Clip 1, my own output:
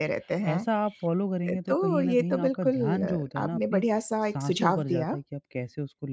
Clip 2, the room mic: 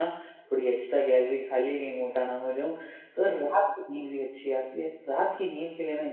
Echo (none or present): none